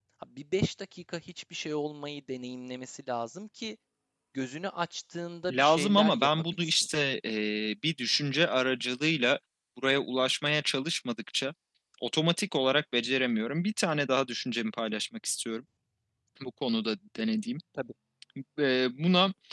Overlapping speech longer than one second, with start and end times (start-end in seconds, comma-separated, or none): 5.5-6.9